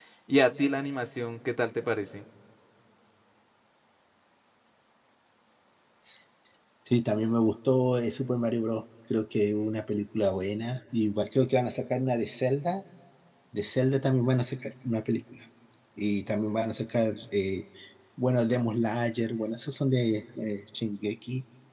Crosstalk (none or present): none